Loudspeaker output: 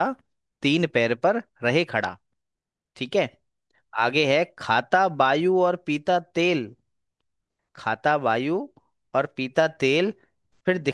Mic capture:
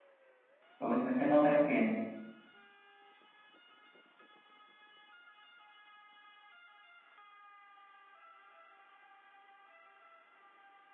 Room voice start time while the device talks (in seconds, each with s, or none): 0.8 s